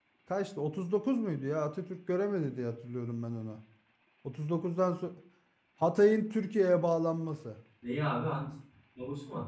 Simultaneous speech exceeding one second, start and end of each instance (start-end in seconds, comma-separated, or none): none